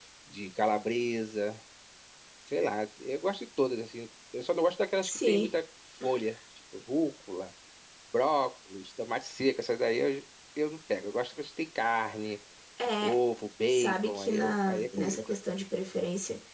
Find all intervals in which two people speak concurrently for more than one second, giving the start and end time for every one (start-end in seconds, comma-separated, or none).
13.7-15.3